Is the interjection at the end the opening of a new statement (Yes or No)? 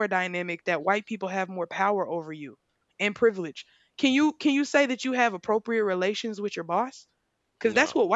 No